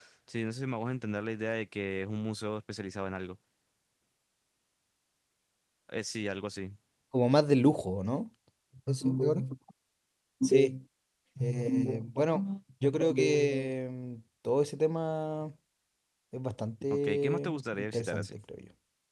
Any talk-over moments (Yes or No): Yes